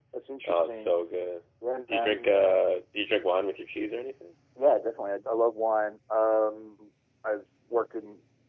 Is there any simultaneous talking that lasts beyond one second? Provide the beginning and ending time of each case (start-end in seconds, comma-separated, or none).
none